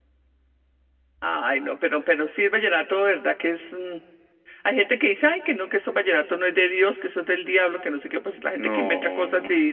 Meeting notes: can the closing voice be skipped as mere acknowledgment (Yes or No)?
Yes